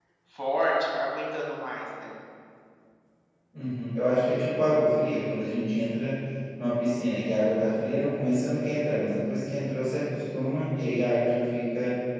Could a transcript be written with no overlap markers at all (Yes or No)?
Yes